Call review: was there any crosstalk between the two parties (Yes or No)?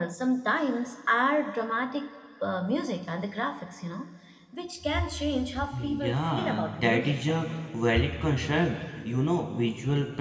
Yes